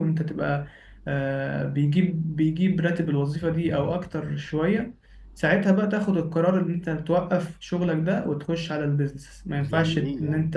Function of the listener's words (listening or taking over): taking over